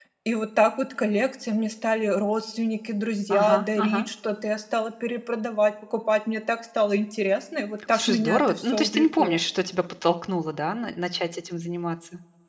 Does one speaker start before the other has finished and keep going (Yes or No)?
Yes